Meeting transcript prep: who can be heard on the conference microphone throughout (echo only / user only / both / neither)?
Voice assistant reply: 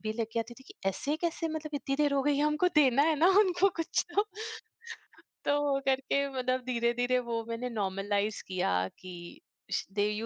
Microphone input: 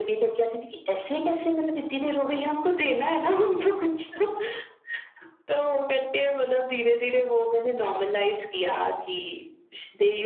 echo only